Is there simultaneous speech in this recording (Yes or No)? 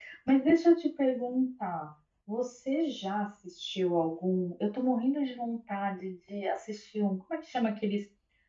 No